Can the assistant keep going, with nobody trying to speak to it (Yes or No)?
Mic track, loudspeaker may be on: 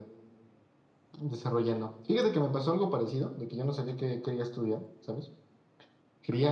Yes